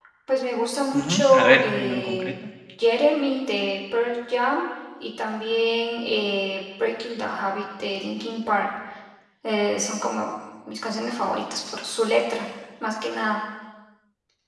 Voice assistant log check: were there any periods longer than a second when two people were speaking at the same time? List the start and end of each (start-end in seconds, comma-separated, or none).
0.9-2.3